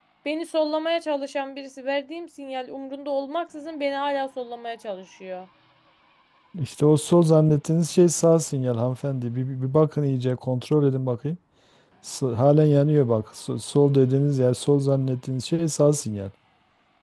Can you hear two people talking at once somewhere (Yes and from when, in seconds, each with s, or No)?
No